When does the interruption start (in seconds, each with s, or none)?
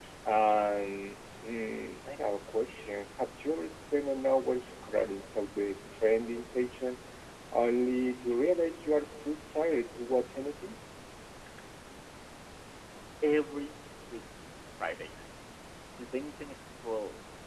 none